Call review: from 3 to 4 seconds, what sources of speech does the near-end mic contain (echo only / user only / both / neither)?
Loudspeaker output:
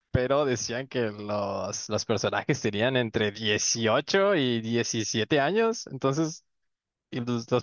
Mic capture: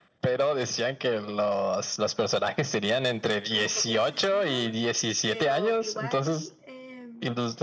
both